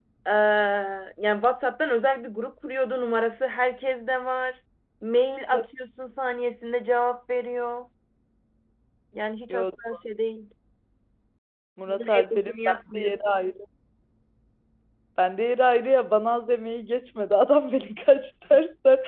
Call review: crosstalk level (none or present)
present